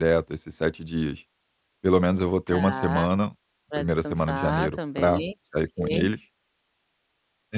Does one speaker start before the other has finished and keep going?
Yes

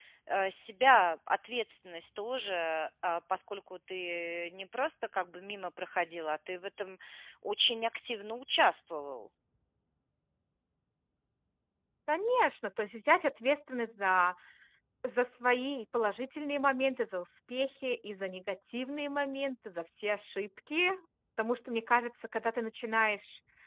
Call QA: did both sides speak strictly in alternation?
Yes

